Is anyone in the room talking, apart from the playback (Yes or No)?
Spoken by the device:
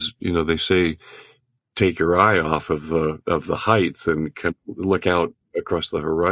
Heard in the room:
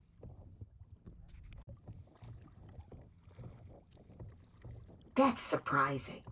Yes